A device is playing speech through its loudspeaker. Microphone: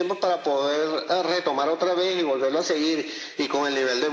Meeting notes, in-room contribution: none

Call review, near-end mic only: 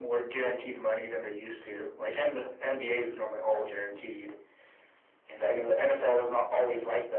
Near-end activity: none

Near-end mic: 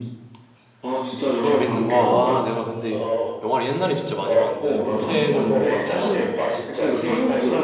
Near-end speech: present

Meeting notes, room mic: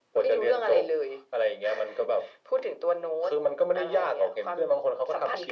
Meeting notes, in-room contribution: none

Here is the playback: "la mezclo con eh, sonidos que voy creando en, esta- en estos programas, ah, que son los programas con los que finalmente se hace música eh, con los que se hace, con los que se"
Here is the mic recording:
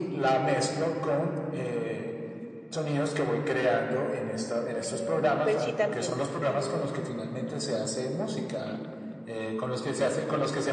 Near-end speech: present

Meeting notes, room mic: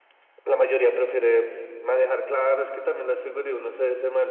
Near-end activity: none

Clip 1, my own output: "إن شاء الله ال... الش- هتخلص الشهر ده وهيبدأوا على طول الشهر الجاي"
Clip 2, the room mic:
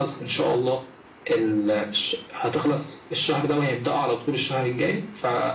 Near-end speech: none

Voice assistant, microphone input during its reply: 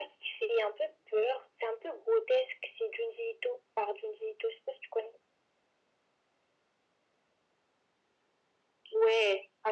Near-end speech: none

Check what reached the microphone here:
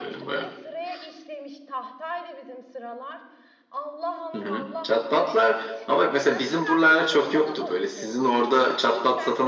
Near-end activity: present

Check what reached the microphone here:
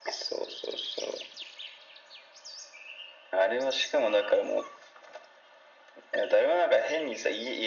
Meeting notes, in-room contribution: none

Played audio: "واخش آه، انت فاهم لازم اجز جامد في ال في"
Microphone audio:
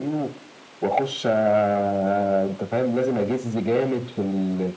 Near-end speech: none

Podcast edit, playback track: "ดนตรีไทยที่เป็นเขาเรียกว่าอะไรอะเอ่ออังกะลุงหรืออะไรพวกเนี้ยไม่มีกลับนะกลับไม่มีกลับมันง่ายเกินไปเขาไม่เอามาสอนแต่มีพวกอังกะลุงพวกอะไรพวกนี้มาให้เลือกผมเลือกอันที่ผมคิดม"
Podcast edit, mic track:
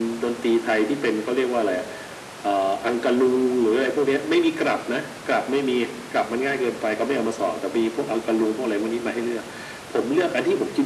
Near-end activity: none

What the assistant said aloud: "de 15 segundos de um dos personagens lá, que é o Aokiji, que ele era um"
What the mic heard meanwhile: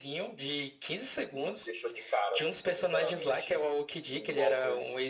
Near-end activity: present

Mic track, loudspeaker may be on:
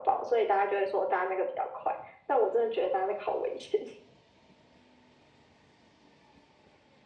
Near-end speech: none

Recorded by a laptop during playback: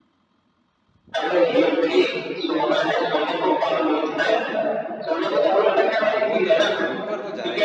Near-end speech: present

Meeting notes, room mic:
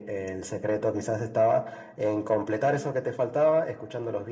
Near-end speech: none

